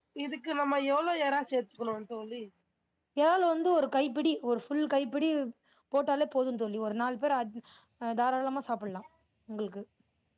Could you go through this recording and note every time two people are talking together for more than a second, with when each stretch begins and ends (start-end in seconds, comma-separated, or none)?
none